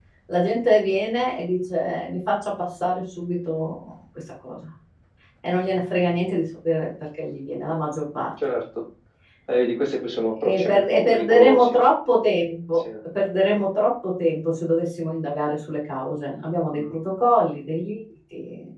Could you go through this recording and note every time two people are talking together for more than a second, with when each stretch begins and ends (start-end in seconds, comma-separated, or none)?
10.4-11.8